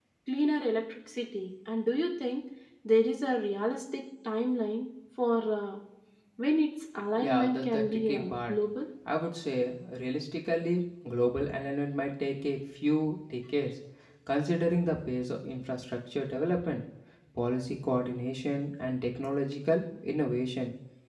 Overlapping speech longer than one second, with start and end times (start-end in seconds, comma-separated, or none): 7.2-8.6